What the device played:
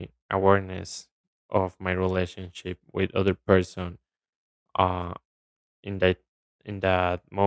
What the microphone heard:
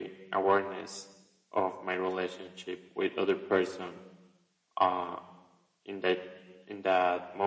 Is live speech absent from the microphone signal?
Yes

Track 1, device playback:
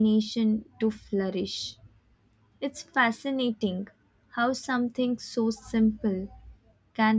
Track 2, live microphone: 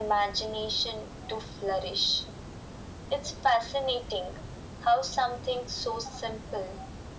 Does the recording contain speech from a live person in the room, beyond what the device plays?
No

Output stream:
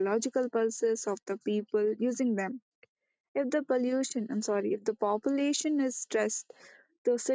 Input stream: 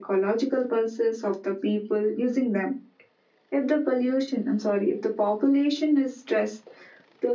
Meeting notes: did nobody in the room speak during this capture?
Yes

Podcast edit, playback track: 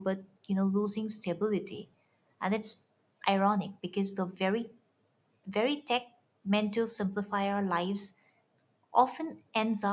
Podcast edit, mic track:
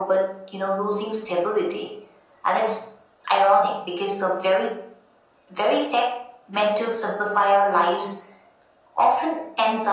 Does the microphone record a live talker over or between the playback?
No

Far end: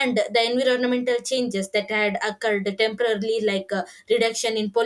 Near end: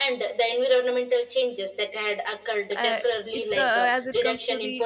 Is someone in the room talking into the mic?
Yes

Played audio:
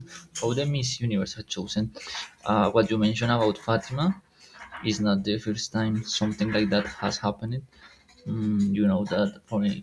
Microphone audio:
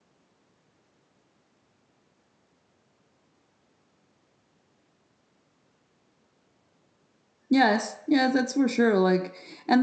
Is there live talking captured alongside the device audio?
Yes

